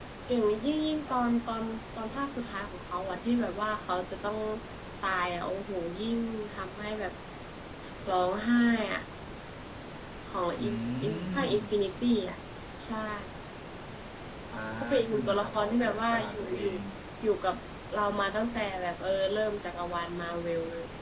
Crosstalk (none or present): present